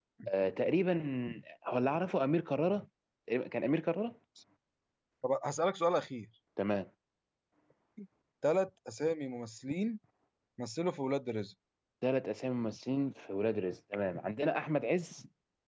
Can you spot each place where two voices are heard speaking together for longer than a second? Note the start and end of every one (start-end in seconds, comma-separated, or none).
none